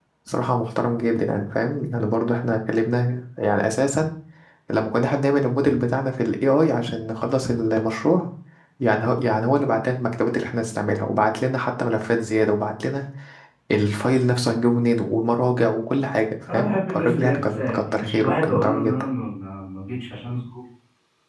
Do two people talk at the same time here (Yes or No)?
Yes